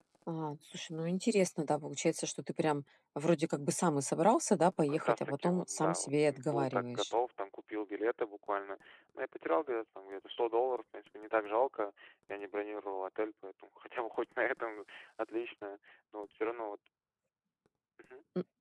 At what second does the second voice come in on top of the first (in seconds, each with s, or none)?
4.8 s